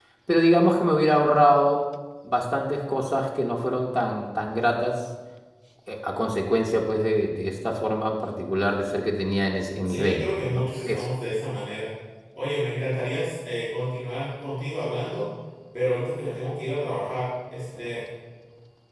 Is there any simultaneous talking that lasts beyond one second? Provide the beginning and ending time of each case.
9.8-11.1

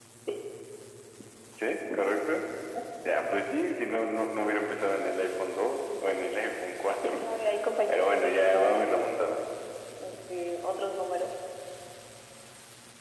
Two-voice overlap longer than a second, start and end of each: 7.9-9.1

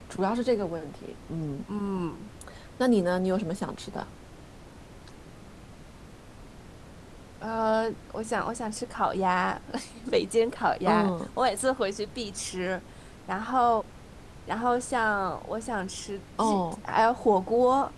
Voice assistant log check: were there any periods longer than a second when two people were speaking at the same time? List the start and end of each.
none

